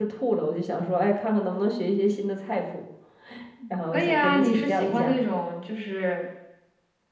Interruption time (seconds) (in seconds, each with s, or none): 3.9 s